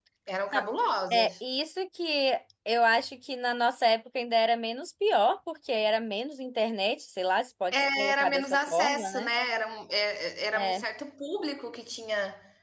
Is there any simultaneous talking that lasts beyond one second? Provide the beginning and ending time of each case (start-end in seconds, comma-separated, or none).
8.0-9.3